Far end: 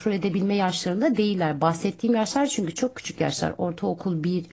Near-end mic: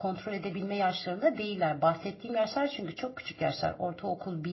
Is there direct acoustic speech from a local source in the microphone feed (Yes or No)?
No